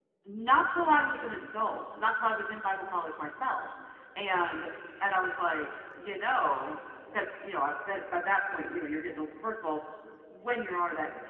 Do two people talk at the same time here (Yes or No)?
No